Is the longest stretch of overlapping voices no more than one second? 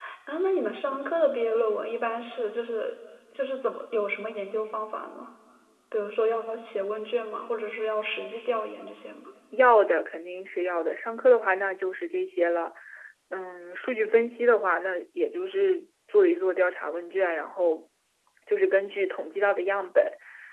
Yes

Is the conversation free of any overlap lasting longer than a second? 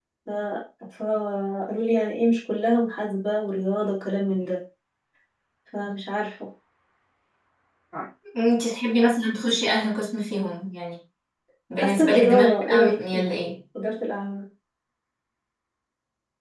No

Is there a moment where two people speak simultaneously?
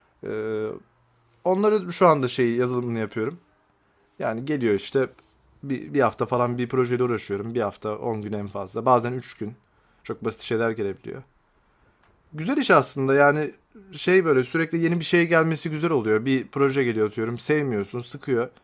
No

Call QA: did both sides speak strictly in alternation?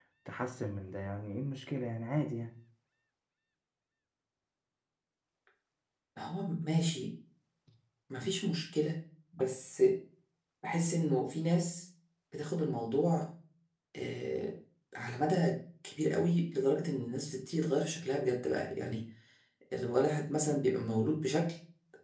Yes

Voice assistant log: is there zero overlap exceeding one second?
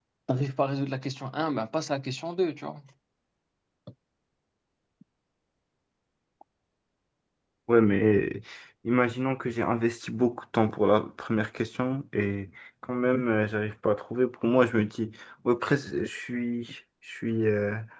Yes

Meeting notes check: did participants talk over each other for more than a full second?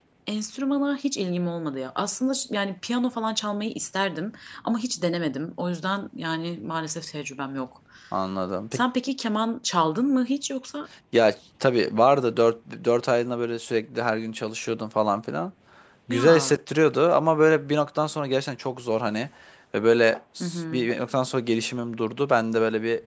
No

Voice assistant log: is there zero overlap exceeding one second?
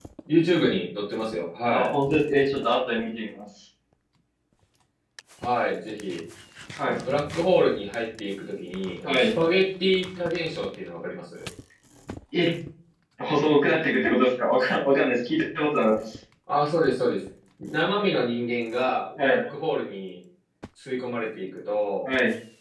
Yes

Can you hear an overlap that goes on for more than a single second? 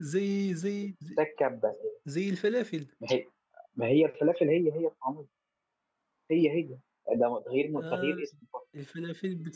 No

